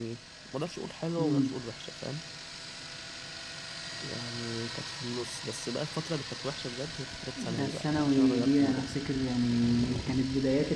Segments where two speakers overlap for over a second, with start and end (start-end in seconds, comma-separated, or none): 7.4-8.9